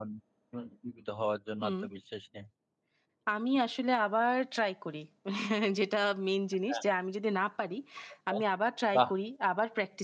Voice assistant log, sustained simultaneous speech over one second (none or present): none